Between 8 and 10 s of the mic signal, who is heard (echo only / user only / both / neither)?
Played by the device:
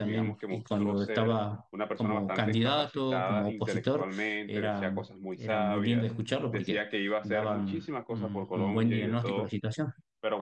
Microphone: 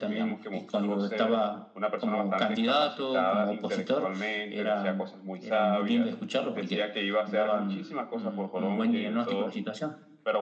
echo only